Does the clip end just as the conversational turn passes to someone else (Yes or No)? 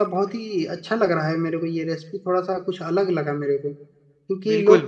No